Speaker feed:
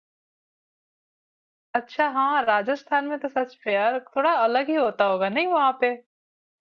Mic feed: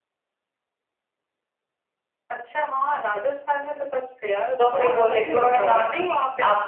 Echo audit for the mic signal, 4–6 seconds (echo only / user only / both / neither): both